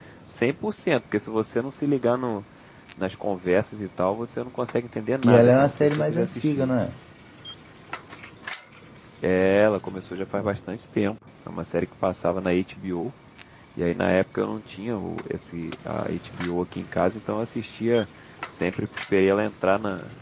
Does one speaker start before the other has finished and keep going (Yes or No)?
Yes